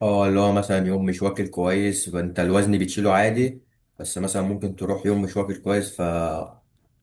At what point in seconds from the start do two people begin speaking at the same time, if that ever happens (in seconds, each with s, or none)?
none